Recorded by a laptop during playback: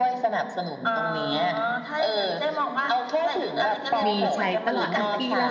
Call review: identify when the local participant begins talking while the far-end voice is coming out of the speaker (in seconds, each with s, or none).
4.0 s